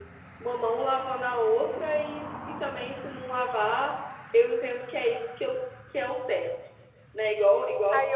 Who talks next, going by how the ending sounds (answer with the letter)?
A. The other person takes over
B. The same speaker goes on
A